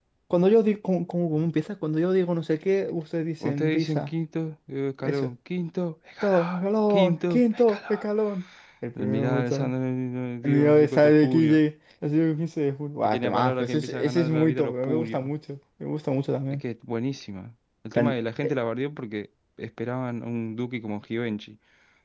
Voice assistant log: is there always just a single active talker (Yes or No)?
No